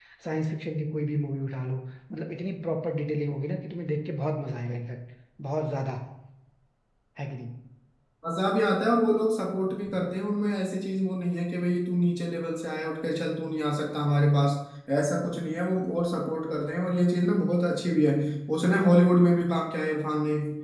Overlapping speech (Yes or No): No